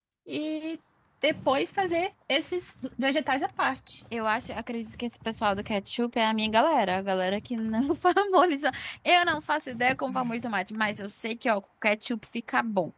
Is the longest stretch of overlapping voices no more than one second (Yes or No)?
Yes